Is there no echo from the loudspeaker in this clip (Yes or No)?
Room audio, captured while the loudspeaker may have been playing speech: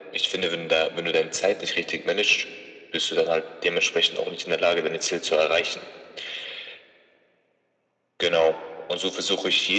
No